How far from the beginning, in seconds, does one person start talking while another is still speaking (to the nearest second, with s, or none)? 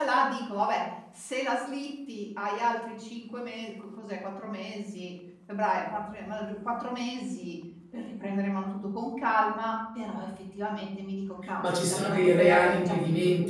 12 s